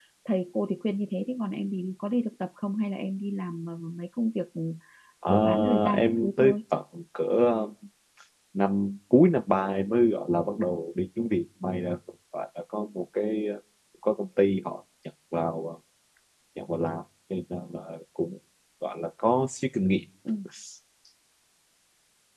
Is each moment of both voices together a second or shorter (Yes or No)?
No